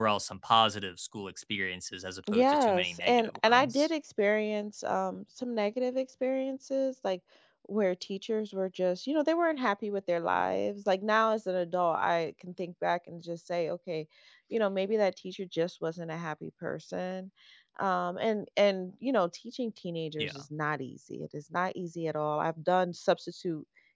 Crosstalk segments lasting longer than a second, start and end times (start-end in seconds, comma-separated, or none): 2.3-3.9